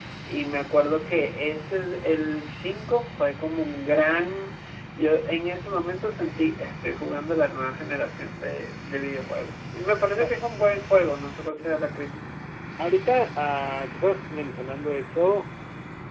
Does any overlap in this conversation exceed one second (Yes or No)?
No